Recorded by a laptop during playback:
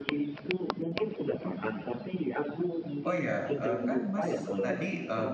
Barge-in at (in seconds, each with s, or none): 3.1 s